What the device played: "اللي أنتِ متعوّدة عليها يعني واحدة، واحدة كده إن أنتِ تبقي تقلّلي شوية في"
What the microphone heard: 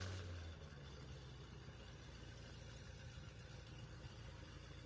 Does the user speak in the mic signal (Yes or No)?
No